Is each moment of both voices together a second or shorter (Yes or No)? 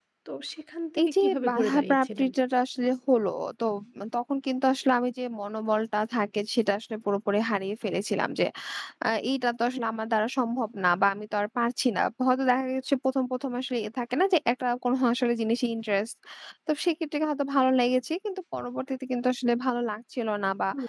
No